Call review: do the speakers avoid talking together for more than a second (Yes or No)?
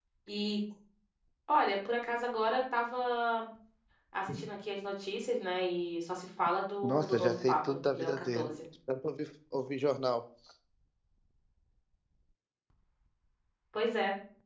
No